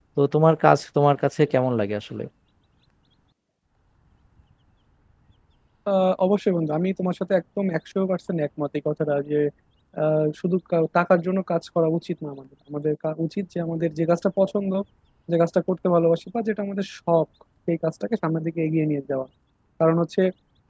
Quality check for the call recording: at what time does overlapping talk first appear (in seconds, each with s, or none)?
none